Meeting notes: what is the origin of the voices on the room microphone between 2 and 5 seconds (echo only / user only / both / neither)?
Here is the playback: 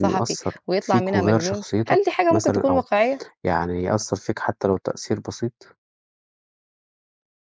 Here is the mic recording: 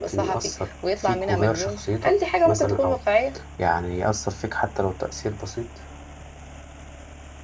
echo only